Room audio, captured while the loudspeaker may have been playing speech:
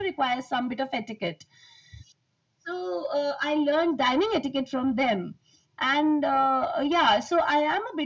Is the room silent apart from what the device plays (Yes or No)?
Yes